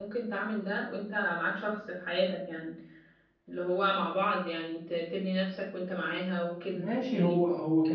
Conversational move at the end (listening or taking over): taking over